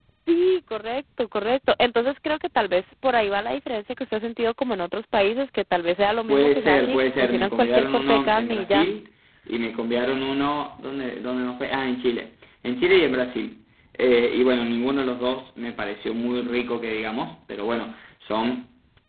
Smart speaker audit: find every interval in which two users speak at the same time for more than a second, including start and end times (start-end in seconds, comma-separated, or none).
6.3-8.9